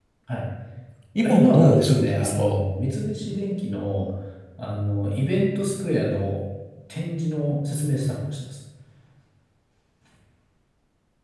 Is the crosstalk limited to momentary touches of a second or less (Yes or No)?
No